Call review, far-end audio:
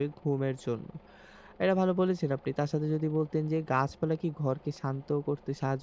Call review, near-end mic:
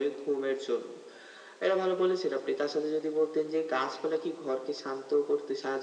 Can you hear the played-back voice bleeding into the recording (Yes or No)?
Yes